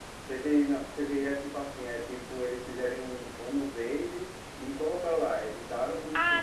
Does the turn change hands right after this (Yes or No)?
Yes